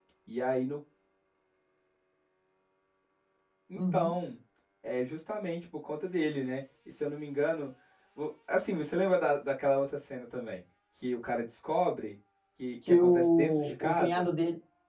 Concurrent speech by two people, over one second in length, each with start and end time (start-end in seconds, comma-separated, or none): 12.9-14.3